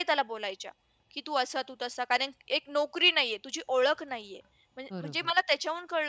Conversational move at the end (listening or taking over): listening